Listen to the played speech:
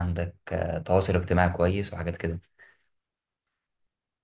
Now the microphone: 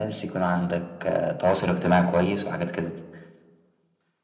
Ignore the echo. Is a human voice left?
No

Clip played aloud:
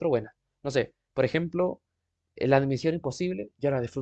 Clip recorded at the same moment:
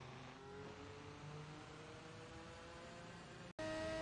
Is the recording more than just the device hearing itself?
No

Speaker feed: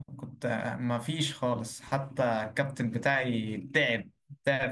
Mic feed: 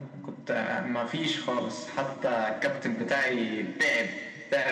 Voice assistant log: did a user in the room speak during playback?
No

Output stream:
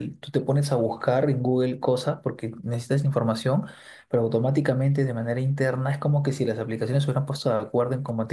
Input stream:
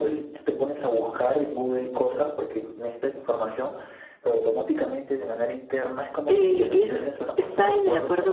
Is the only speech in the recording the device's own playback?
No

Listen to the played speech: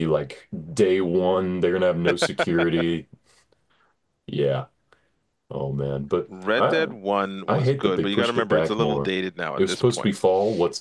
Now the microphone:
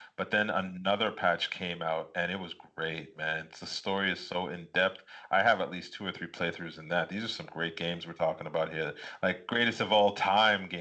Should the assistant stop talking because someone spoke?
Yes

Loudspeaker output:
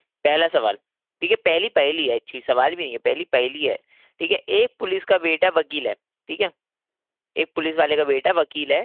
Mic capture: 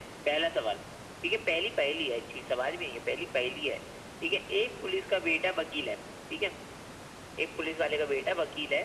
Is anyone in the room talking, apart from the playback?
No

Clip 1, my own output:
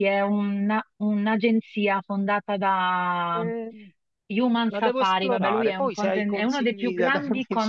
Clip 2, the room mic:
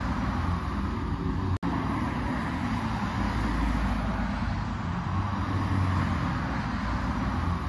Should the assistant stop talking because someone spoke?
No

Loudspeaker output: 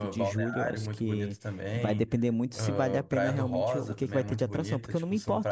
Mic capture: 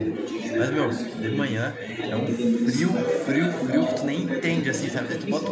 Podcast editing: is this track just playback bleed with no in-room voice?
No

